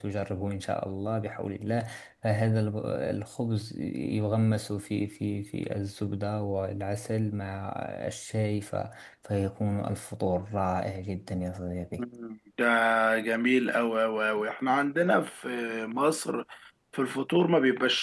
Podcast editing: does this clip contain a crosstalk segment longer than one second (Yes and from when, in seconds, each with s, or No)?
No